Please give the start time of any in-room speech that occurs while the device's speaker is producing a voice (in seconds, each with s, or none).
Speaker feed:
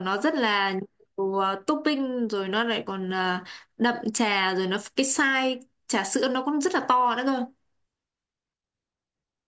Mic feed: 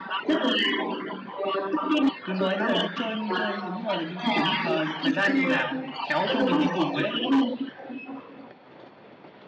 2.2 s